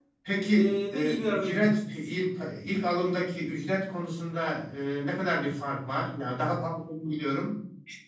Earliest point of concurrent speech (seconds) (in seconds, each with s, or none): 0.5 s